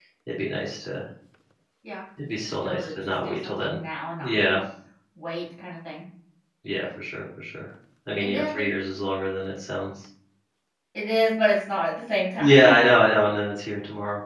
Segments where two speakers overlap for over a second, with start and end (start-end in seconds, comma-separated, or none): 2.5-3.8